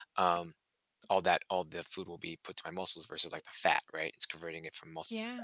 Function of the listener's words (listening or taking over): listening